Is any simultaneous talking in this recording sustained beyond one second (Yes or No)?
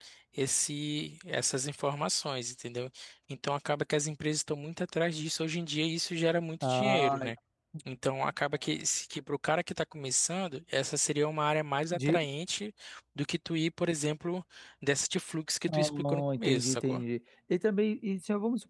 Yes